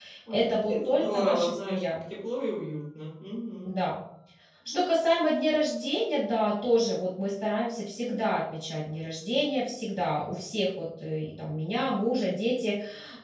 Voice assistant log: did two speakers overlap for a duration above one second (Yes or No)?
Yes